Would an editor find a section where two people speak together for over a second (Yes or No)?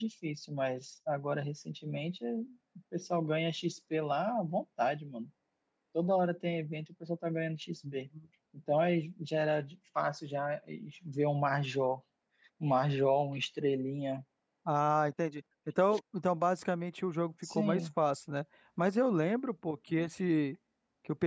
No